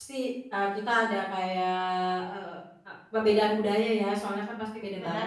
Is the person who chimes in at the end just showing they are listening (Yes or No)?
Yes